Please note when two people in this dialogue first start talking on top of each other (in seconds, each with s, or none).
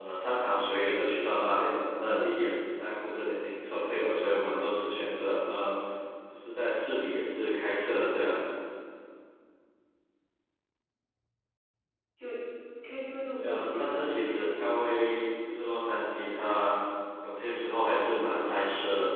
13.3 s